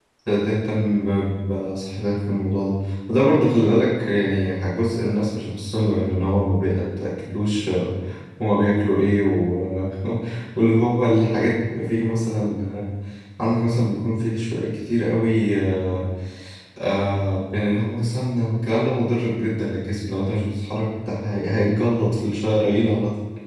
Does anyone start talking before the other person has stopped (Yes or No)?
No